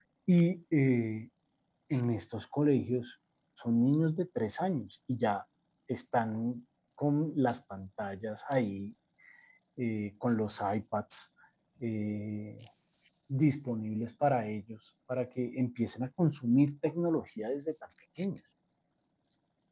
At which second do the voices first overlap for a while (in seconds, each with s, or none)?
none